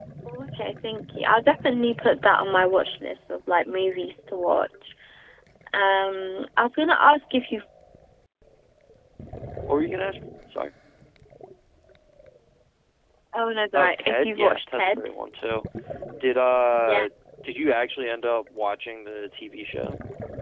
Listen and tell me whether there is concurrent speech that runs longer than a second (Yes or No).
Yes